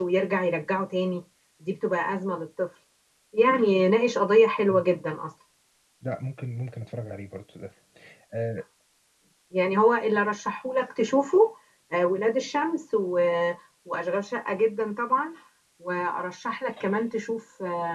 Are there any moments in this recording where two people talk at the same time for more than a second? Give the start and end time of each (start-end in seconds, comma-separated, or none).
none